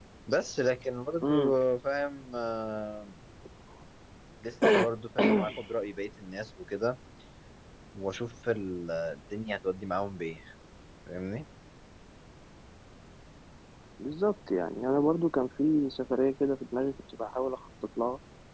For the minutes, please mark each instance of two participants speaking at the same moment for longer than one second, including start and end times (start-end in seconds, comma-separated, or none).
none